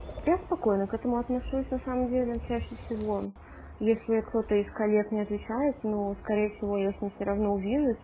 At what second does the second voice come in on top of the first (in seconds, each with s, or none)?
none